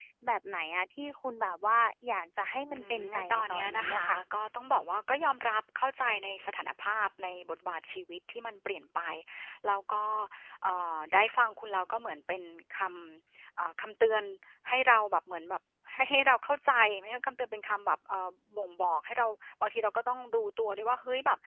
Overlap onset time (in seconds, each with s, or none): 2.7 s